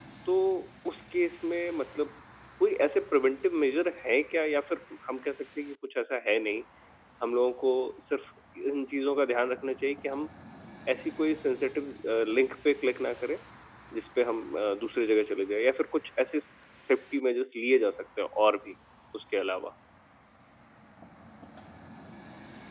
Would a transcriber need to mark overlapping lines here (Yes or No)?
No